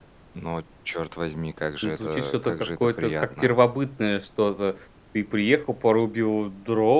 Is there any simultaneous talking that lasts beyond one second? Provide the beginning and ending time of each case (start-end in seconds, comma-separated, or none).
1.8-3.5